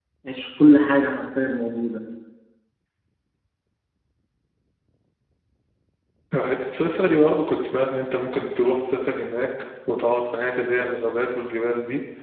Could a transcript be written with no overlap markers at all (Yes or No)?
Yes